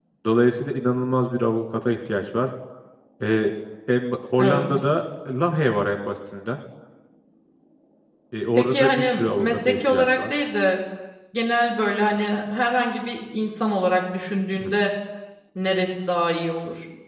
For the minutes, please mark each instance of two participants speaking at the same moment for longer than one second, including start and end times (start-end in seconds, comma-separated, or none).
8.6-10.2